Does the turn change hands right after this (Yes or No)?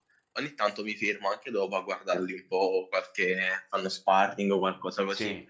No